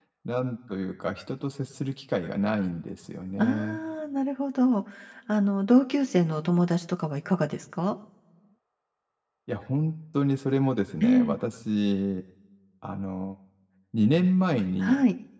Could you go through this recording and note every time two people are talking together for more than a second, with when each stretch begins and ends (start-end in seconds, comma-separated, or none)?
none